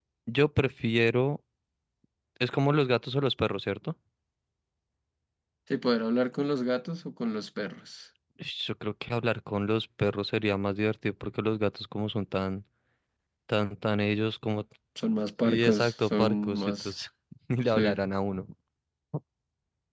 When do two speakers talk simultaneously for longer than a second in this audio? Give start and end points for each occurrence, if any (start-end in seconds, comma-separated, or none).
15.4-16.9